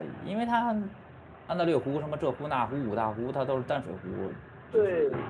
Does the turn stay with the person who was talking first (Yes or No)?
No